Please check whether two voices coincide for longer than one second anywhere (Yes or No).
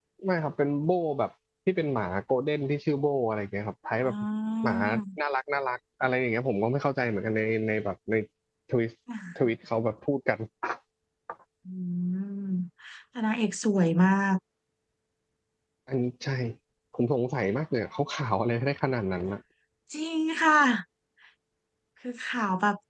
No